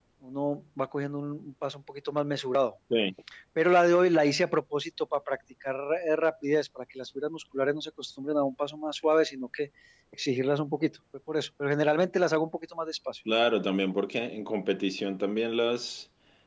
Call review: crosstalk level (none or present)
none